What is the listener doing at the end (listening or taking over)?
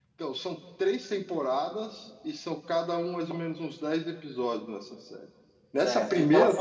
taking over